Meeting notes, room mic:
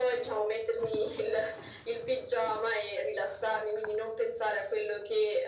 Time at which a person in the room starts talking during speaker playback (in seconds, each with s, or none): none